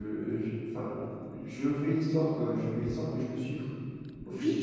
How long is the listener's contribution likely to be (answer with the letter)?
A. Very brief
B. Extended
B